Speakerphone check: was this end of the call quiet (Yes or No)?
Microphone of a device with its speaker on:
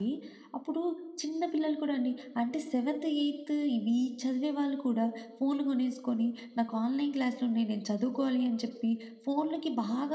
No